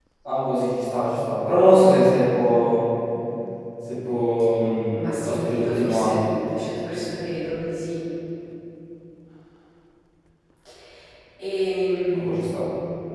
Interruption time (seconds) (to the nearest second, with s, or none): 5 s